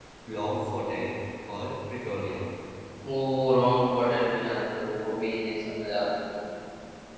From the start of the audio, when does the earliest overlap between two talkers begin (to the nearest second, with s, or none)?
none